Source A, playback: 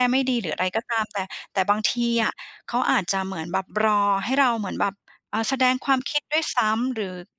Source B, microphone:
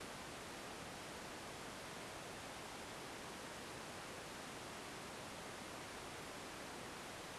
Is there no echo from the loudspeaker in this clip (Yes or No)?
Yes